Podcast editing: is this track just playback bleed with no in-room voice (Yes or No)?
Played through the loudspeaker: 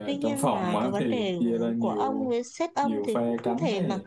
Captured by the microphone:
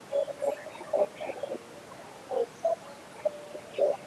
Yes